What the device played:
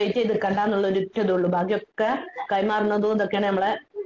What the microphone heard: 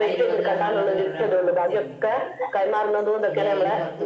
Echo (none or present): present